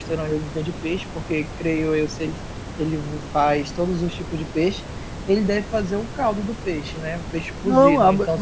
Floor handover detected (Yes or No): Yes